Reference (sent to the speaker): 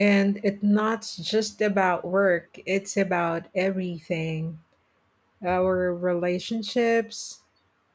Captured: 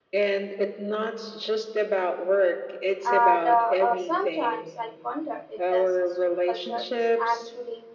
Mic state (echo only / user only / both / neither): both